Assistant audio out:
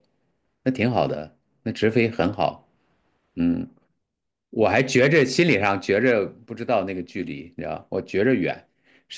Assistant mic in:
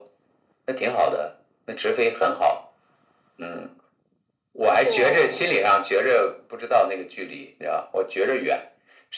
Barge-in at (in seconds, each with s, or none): 4.8 s